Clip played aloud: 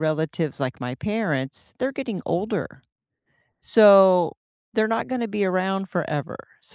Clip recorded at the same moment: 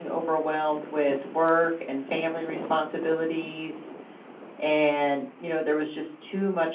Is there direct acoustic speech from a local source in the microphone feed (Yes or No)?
Yes